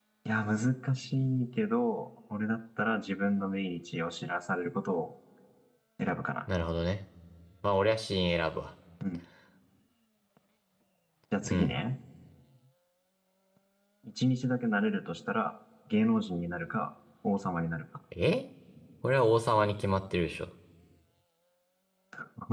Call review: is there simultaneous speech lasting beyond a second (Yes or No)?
No